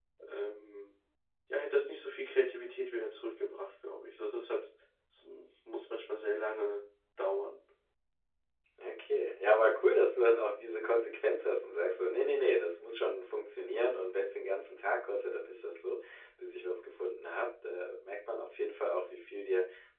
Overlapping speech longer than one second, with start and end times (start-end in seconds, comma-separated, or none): none